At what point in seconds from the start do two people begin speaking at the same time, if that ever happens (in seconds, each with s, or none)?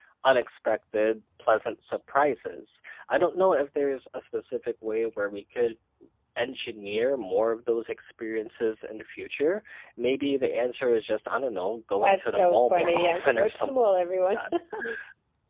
12.0 s